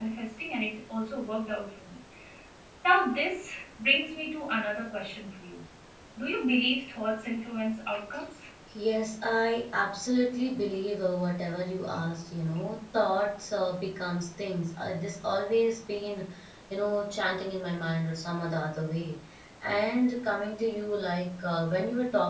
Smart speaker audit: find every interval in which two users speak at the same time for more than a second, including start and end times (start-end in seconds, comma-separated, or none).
none